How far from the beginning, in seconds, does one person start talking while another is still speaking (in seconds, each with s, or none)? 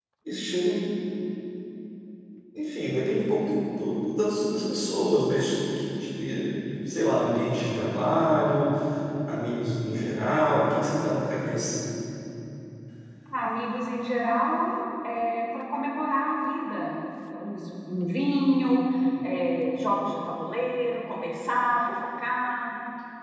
none